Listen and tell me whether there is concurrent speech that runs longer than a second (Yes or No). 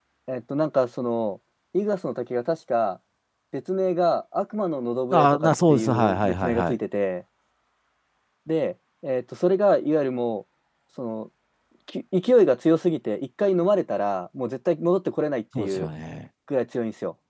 Yes